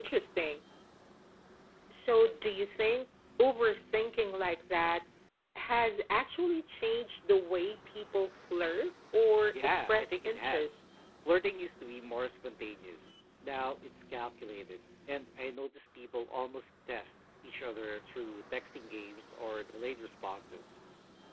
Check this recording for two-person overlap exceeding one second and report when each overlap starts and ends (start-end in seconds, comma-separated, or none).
9.5-10.8